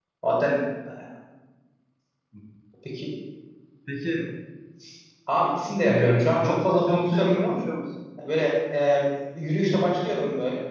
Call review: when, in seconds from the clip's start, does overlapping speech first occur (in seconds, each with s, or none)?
5.8 s